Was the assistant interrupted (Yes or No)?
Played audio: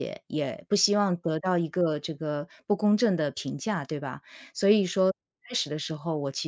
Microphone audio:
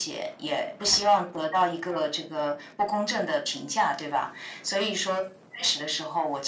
No